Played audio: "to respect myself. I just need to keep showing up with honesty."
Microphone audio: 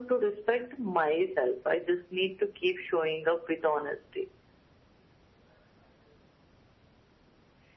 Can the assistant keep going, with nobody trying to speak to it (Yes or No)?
Yes